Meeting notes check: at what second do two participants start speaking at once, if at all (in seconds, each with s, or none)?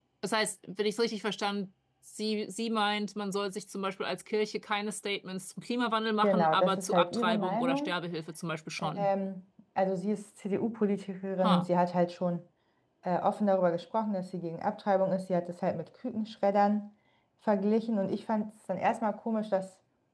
6.2 s